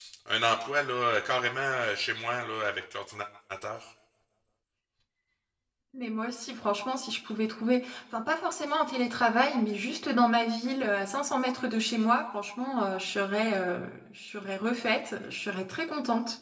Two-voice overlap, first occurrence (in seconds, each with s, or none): none